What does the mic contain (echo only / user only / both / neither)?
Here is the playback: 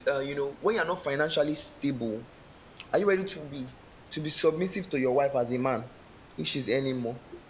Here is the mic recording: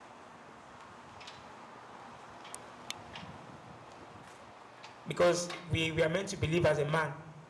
user only